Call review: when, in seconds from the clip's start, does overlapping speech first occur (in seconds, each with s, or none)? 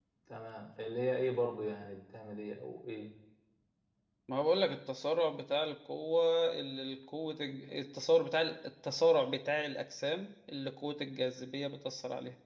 none